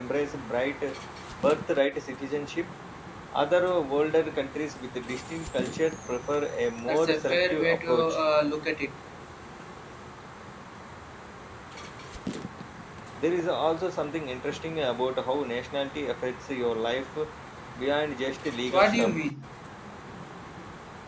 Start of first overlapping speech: 6.9 s

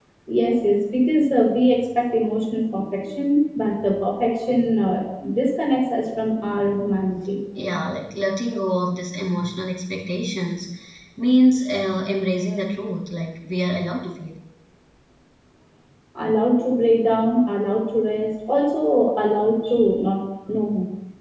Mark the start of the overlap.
none

